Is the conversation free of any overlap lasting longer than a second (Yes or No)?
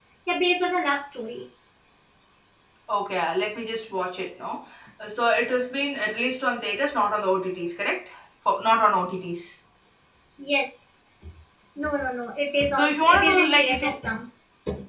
No